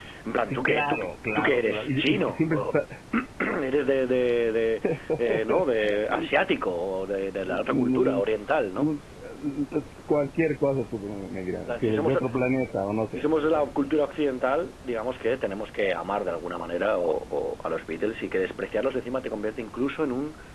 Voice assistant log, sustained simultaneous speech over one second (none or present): present